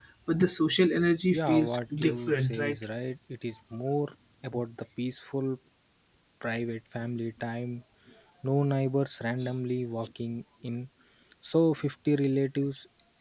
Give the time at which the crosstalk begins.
1 s

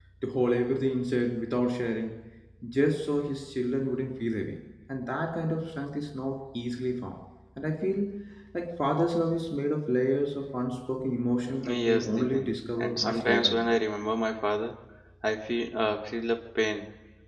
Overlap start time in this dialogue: 11 s

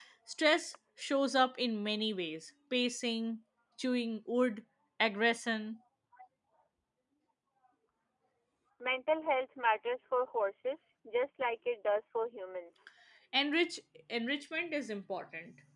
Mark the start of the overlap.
none

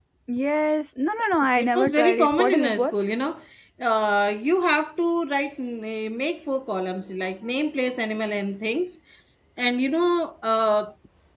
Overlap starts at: 2 s

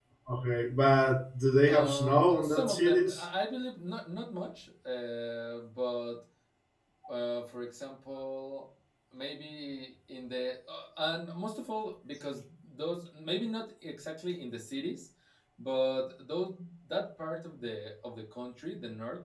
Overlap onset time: 2 s

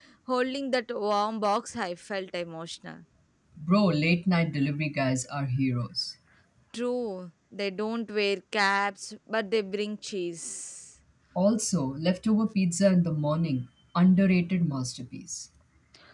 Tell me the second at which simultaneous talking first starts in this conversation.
none

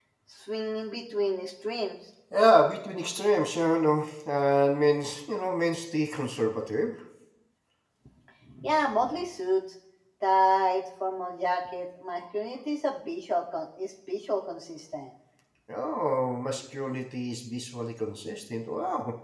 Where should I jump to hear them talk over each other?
none

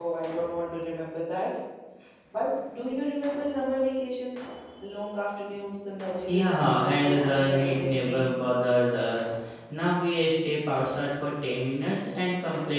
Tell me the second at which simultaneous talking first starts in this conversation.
6 s

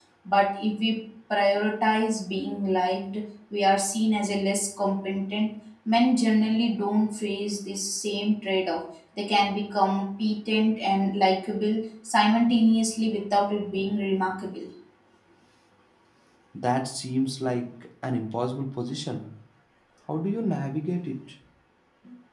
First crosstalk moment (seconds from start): none

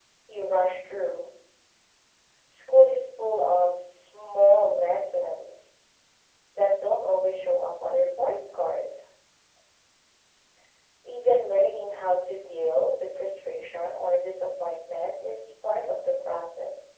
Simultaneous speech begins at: none

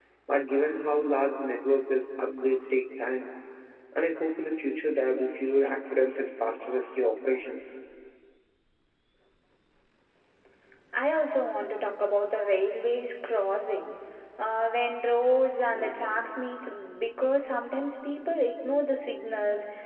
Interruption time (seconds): none

